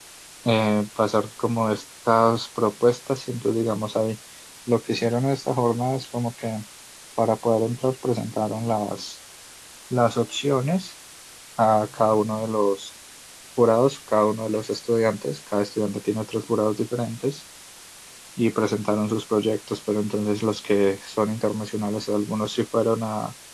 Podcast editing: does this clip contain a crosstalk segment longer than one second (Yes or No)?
No